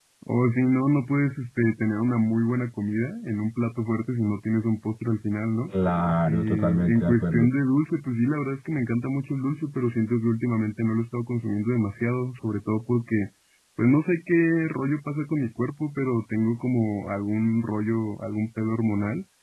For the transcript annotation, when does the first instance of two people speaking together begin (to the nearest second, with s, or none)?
6 s